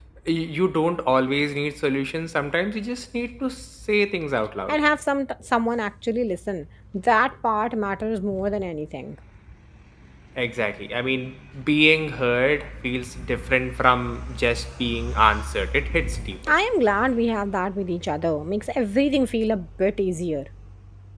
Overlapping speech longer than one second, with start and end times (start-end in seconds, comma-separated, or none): none